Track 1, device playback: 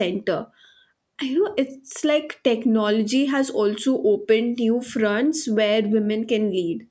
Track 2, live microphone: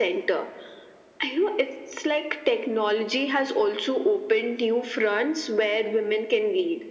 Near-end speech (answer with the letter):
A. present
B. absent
B